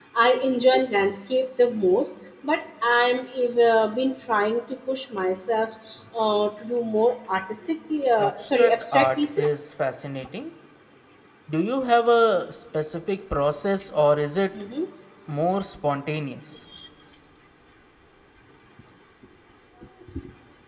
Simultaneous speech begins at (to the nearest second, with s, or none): 8 s